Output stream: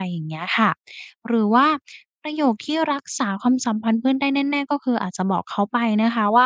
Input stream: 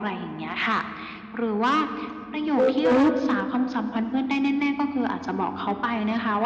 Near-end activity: present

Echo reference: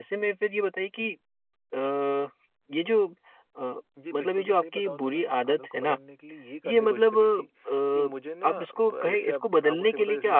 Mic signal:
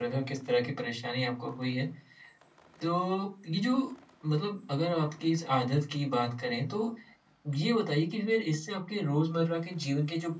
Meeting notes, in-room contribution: present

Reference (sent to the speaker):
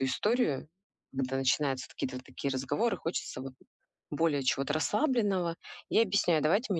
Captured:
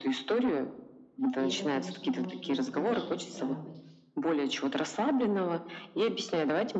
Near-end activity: present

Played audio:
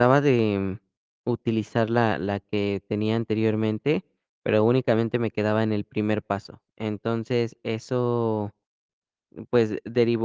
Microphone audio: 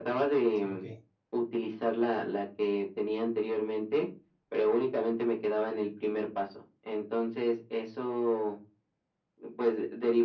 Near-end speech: present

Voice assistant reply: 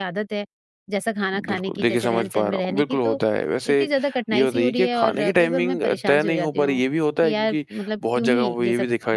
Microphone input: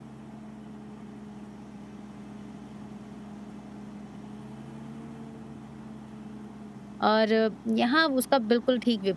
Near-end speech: present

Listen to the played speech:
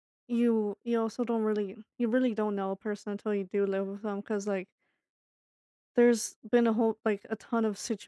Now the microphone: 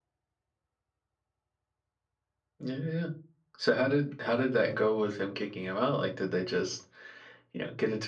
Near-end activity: present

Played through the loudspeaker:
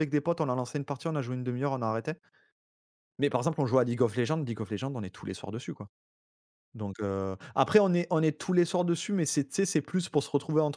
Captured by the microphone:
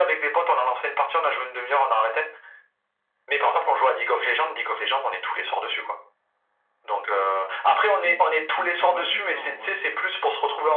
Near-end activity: present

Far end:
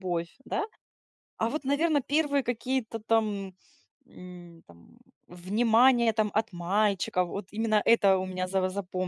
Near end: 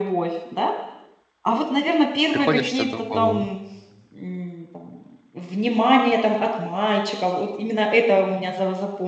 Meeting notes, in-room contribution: present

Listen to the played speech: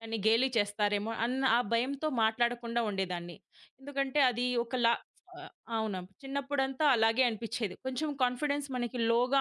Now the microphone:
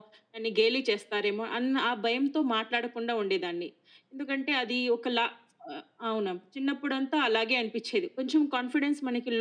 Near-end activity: none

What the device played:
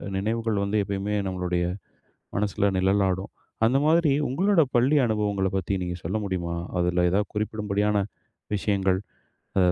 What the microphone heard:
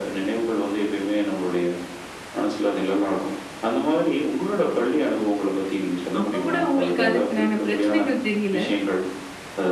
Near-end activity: present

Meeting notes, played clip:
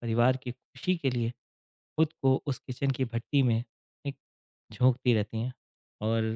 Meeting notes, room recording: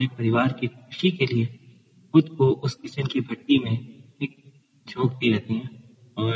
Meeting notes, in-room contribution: none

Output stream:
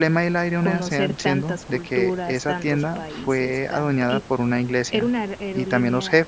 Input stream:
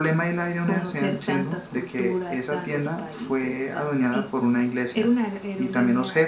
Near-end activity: none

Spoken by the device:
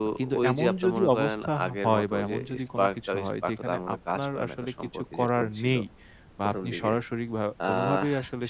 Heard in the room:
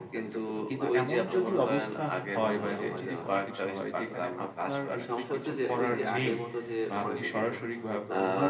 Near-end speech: present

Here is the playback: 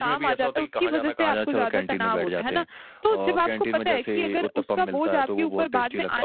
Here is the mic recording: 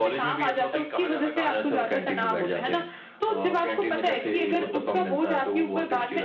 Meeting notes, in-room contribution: none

